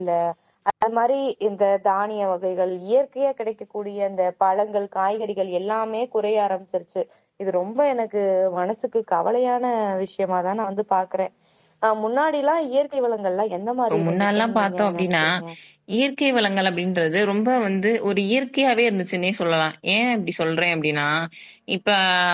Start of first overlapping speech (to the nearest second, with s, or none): 14 s